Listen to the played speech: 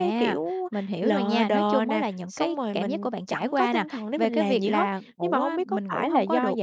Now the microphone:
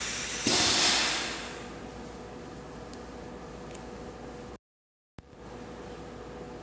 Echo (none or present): none